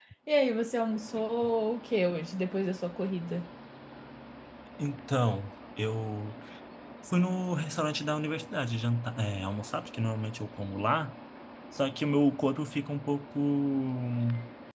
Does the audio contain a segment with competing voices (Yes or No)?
No